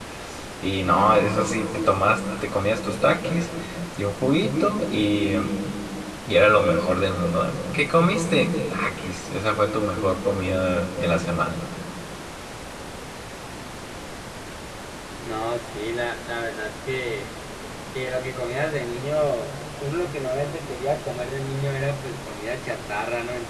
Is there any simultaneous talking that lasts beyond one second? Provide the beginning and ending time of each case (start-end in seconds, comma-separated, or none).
none